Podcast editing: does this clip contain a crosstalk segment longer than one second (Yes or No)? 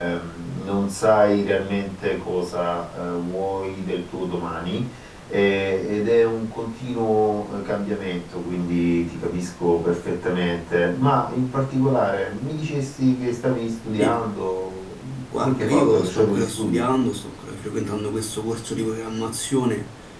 Yes